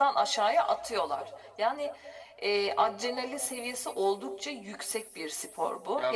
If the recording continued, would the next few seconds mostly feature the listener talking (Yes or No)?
No